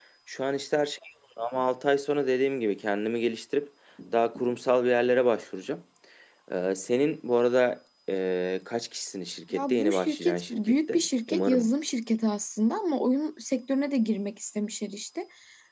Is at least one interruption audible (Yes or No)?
Yes